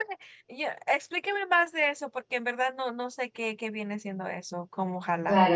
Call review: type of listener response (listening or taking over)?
taking over